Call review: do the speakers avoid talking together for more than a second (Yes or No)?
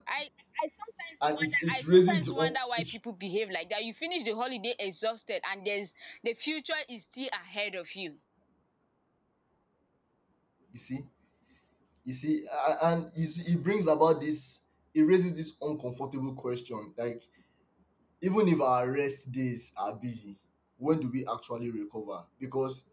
No